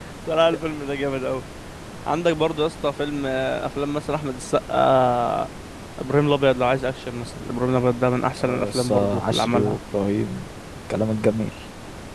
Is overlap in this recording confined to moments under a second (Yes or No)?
No